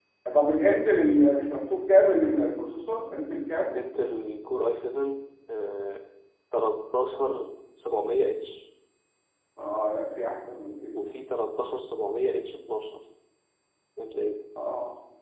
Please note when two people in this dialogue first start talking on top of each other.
none

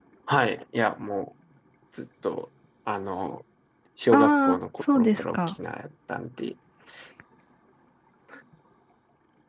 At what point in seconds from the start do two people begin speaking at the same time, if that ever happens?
4 s

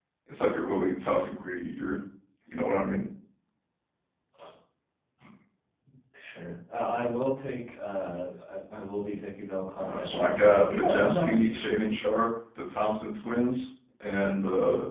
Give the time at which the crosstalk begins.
10 s

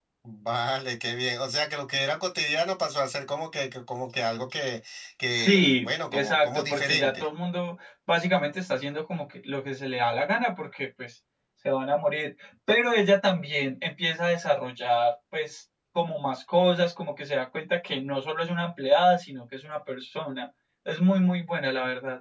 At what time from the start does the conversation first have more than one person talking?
5 s

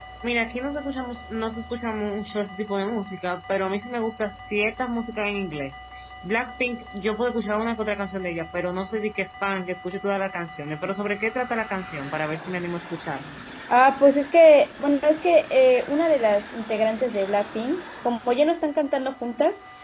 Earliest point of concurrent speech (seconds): none

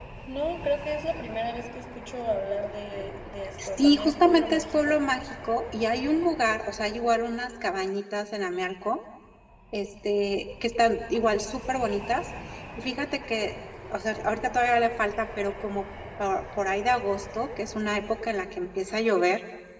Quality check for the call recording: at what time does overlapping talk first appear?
4 s

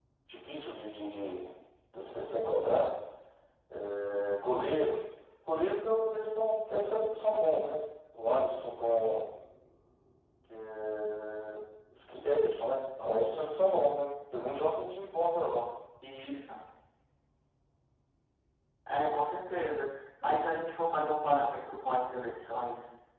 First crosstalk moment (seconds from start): none

